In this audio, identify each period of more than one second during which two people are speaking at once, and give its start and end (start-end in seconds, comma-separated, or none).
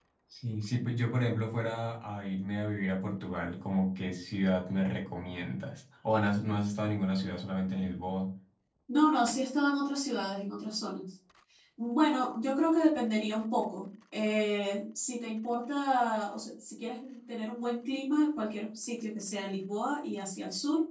none